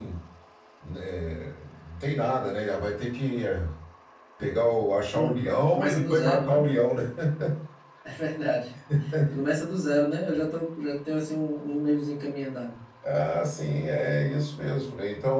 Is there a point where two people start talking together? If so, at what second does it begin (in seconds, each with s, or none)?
5.1 s